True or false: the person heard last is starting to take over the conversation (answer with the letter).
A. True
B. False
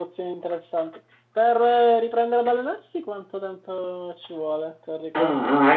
A